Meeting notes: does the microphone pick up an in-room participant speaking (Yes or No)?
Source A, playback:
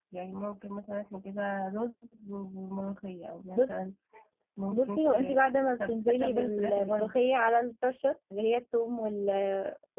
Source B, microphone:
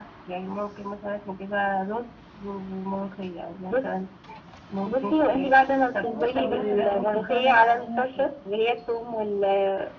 Yes